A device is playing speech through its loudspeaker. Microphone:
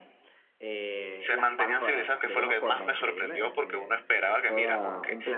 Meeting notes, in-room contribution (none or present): present